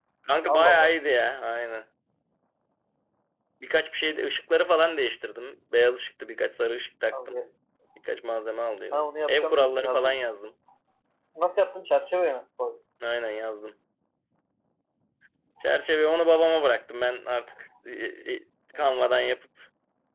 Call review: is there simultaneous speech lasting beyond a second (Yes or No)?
Yes